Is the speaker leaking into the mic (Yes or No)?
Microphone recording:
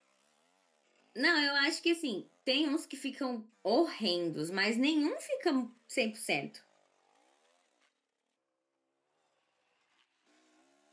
No